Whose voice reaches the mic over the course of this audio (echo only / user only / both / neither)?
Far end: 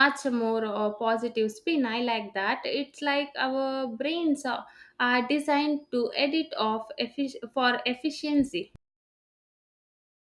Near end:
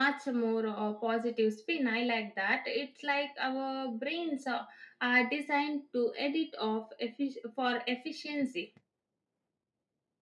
echo only